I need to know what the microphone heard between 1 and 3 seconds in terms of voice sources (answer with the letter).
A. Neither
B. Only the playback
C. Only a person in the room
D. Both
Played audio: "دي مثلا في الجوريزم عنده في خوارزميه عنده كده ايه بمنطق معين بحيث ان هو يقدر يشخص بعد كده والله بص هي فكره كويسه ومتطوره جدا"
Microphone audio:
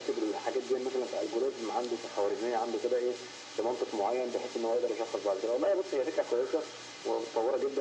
B